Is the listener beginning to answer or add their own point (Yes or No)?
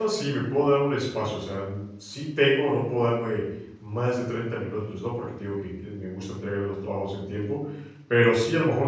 No